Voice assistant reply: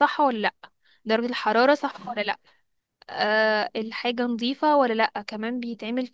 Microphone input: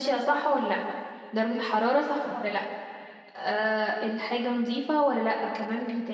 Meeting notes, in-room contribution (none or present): none